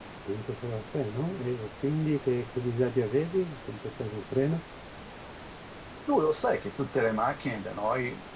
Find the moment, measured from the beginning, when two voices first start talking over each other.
none

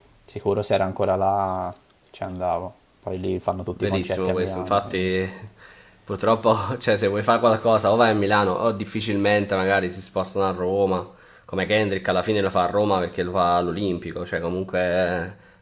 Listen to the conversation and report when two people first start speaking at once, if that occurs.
4 s

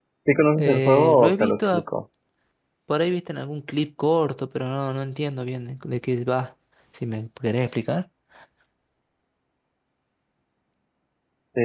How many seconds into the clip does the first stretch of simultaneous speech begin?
1 s

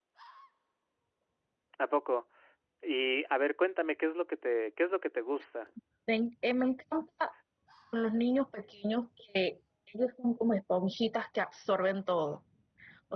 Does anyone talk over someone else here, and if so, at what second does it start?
none

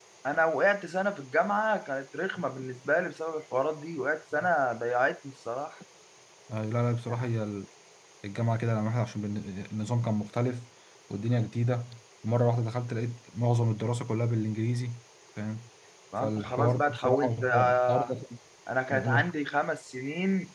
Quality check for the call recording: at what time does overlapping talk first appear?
16 s

